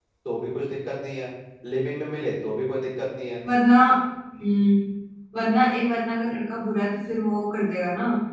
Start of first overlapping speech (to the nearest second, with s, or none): none